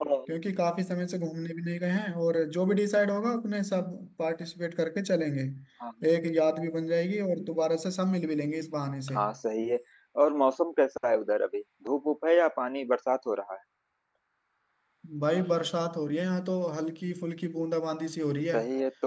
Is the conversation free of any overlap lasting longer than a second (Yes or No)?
Yes